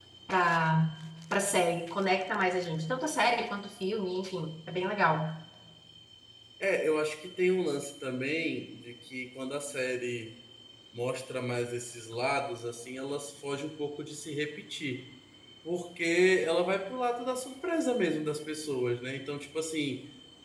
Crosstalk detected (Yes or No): No